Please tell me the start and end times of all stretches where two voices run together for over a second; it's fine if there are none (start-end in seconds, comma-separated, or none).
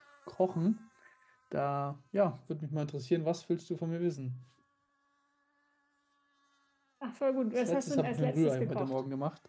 7.7-8.9